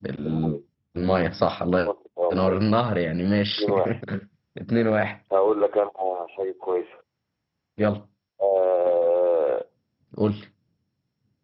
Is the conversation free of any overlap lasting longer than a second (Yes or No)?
Yes